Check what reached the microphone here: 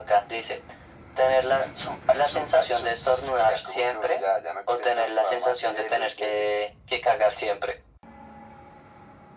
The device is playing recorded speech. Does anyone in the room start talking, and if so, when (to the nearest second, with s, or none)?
none